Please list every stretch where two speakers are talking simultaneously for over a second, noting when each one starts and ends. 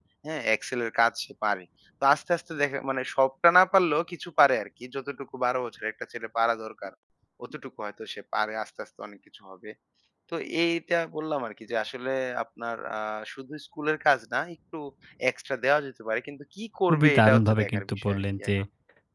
16.9-18.5

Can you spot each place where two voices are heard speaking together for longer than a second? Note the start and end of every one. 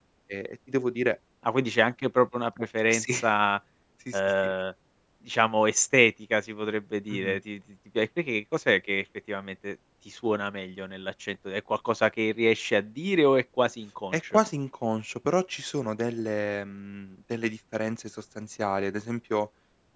none

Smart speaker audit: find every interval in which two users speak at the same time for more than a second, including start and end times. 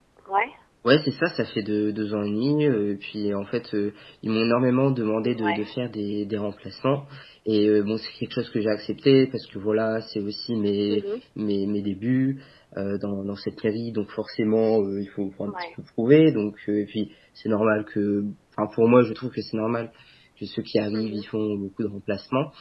none

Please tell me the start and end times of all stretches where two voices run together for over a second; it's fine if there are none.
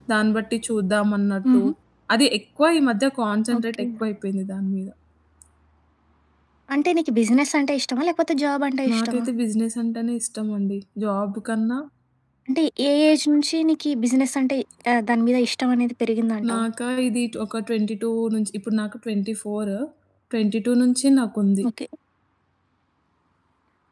none

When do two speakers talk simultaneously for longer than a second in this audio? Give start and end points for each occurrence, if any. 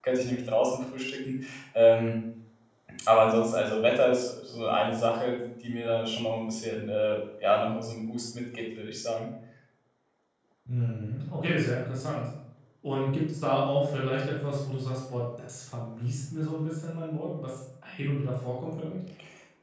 none

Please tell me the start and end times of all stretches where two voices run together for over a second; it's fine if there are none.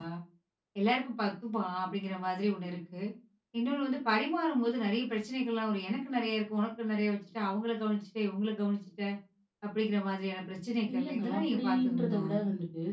10.9-12.2

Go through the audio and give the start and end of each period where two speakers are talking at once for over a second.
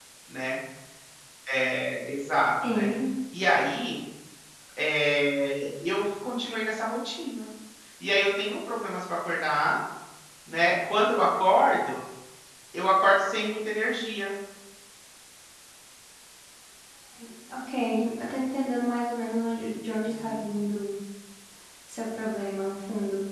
none

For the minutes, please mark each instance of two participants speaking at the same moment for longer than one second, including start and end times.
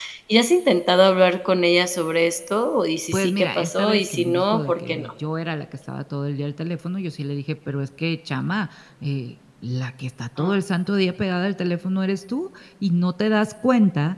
3.1-5.1

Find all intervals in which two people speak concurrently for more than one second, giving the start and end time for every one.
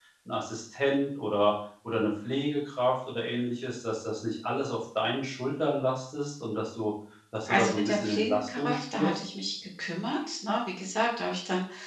7.4-9.2

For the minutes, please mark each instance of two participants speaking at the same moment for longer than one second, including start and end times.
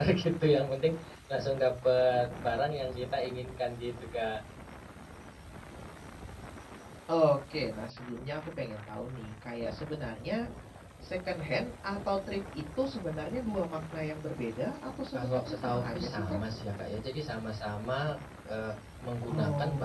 15.1-16.4

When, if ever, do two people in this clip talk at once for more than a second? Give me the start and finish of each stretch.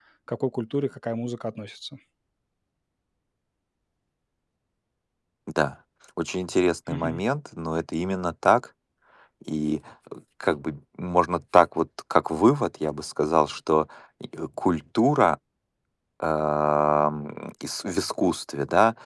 none

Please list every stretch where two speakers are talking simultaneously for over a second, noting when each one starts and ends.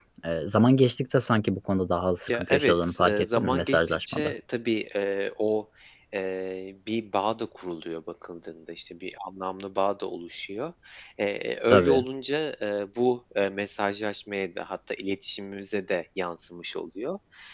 2.3-4.3

